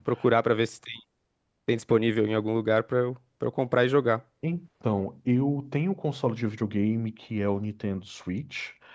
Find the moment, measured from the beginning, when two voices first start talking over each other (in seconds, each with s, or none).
none